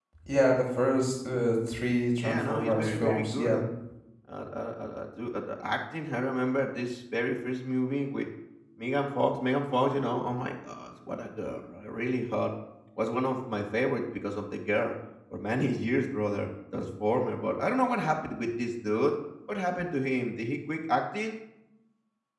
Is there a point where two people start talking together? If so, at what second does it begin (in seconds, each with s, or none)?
2.2 s